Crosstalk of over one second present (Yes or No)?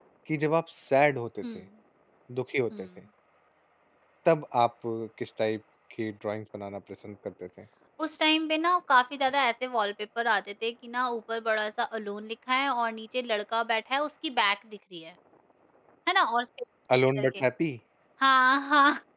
No